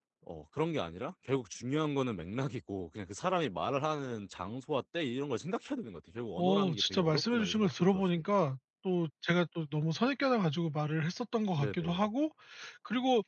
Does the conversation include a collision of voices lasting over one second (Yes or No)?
Yes